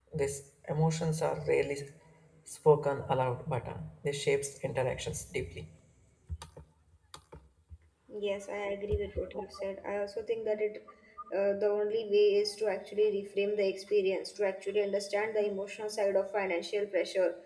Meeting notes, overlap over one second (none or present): none